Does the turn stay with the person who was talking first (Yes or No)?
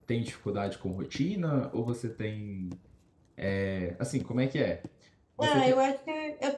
No